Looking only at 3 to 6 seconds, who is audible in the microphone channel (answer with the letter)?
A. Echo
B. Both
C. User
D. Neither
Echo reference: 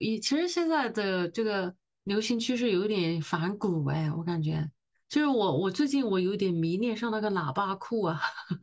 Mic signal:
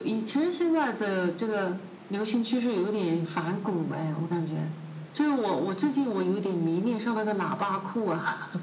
A